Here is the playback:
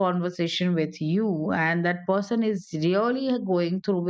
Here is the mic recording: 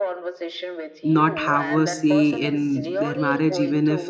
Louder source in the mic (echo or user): user